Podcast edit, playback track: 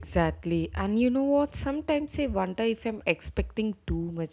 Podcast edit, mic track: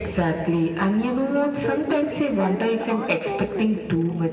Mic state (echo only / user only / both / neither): both